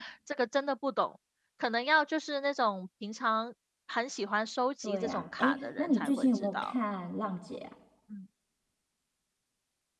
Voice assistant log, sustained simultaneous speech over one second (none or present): present